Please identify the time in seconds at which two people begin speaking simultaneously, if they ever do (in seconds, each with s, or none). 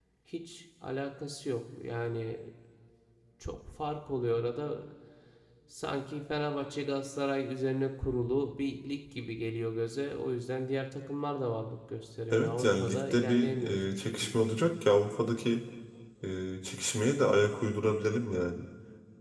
12.3 s